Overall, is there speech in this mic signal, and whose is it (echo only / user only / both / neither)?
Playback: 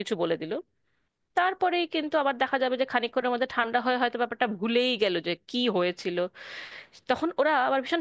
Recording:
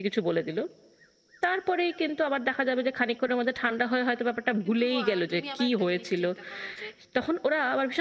both